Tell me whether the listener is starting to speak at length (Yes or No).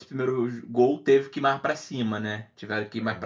No